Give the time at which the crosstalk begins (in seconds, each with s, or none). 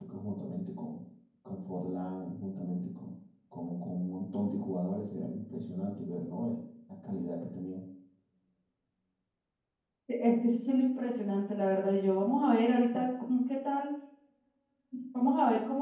none